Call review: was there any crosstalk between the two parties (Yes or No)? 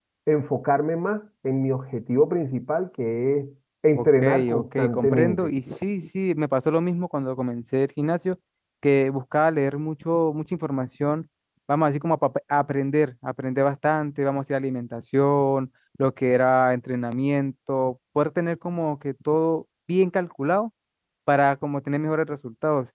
Yes